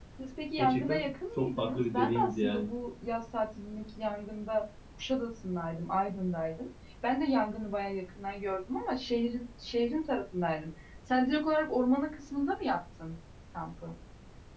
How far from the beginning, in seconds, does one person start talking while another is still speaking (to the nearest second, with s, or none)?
1 s